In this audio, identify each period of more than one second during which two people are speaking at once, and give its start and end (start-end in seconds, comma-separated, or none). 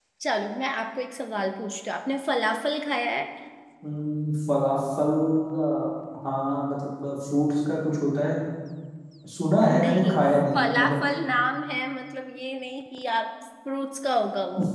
9.7-11.0